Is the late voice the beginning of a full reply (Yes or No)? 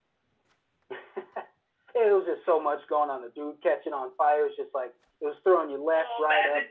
Yes